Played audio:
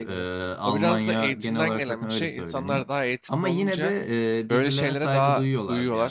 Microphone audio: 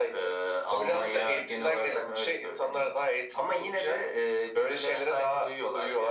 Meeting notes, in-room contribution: none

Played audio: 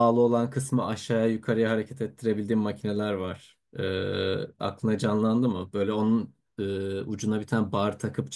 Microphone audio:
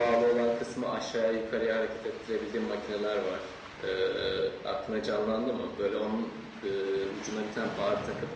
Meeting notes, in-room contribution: none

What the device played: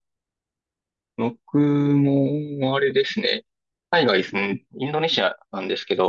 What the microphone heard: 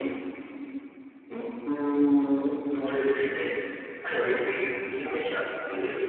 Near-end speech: none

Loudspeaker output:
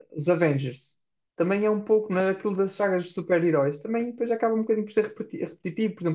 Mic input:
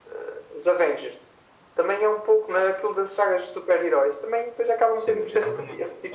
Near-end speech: present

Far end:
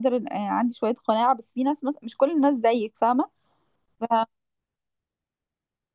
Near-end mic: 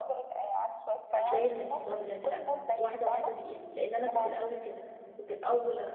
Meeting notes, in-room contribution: present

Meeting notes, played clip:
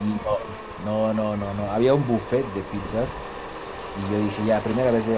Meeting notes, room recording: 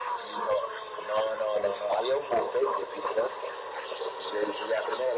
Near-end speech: none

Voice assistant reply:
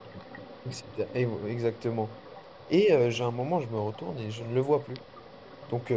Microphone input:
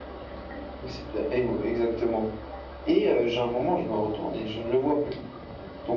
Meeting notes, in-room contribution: none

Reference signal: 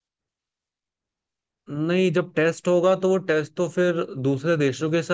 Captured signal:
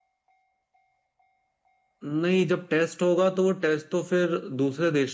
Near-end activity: none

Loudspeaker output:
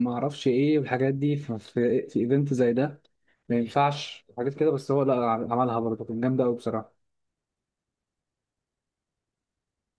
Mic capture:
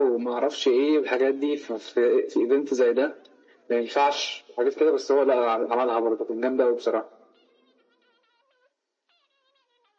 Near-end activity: none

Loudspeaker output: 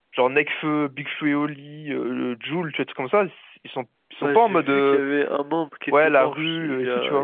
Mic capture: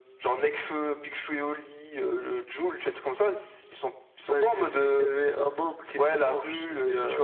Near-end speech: none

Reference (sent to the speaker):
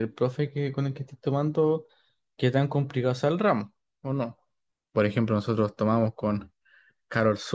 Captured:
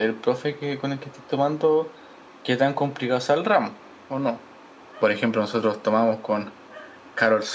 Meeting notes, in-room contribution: none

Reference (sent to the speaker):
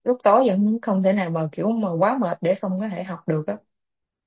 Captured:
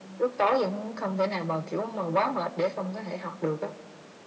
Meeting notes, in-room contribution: none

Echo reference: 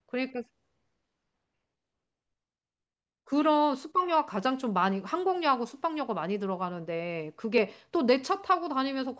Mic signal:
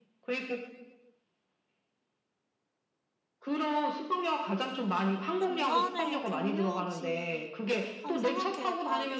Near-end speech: present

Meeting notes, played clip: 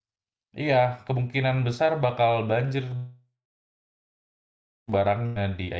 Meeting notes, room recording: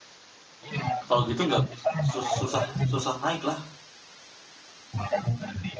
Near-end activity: present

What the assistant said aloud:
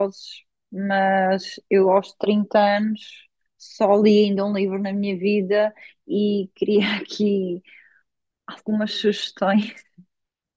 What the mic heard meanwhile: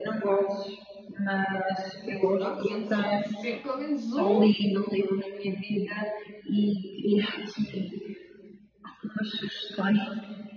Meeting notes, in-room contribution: present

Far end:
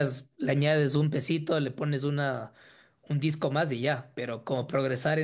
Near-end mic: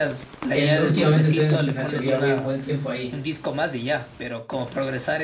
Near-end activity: present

